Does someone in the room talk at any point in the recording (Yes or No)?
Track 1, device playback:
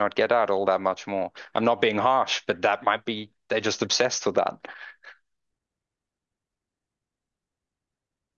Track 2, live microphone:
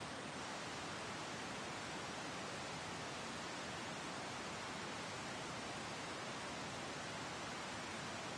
No